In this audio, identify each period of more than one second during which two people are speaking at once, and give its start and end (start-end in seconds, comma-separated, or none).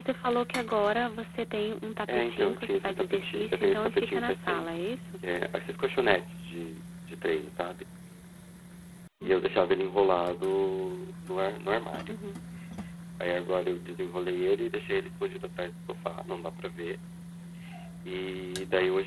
2.1-4.7